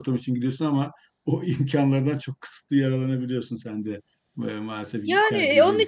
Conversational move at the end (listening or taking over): taking over